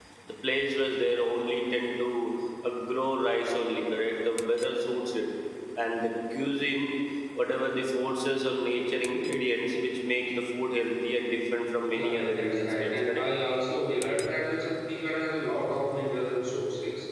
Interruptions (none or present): present